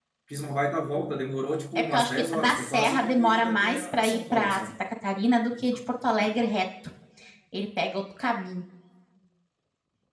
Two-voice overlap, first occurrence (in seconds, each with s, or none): 1.8 s